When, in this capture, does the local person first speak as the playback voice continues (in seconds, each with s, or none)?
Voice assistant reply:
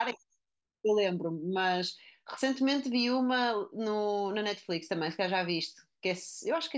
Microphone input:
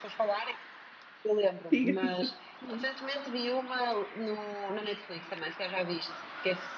1.7 s